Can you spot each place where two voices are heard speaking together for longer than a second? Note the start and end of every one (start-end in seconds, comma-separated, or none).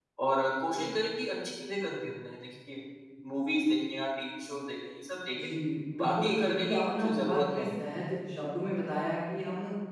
6.0-7.7